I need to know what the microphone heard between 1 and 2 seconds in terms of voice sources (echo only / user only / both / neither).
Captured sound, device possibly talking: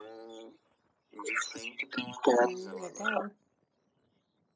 echo only